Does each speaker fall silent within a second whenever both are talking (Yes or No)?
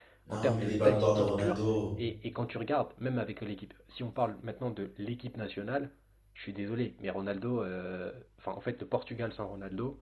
No